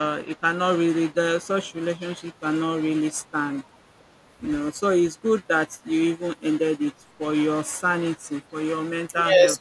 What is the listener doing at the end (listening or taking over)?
taking over